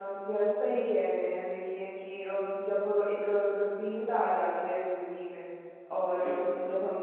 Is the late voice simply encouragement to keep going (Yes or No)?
Yes